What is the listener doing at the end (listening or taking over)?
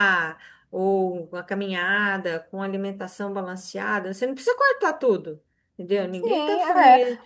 taking over